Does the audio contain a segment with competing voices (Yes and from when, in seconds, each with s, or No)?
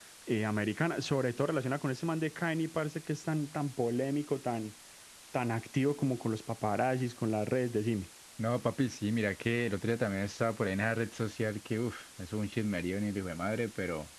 No